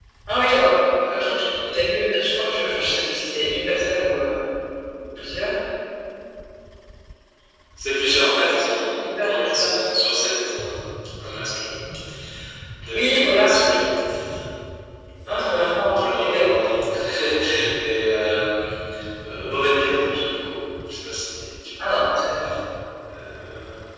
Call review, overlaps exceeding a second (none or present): present